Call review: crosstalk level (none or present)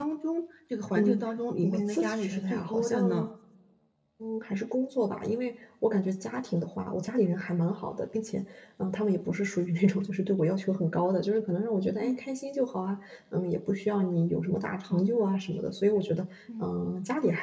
present